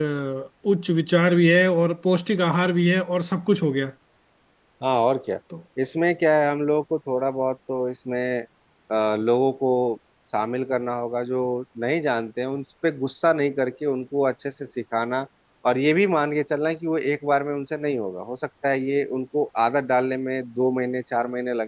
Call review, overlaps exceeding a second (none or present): none